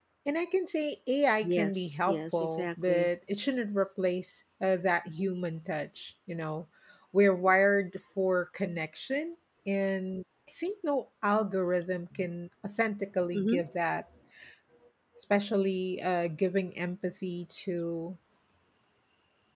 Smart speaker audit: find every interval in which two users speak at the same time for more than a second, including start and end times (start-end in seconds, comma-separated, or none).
1.4-3.1